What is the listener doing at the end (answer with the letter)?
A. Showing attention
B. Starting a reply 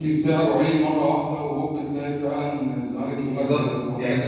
B